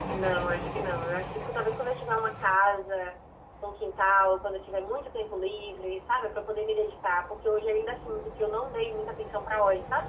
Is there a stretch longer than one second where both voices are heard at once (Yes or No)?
No